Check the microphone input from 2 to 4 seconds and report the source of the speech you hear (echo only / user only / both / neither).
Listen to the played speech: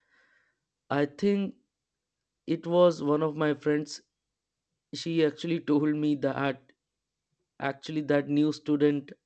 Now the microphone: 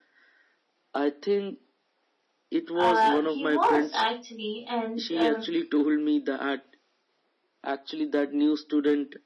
both